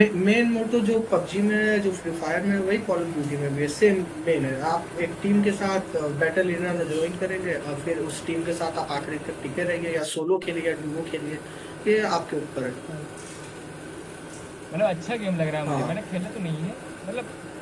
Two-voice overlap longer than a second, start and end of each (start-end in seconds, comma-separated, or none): none